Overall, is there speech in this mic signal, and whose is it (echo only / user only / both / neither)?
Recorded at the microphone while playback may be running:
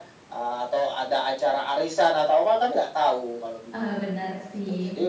both